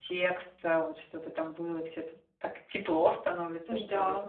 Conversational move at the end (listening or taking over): taking over